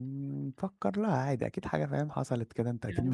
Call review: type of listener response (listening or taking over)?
taking over